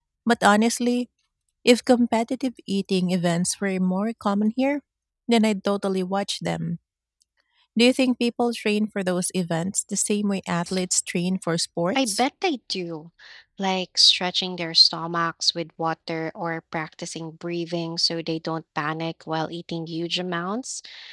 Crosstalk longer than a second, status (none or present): none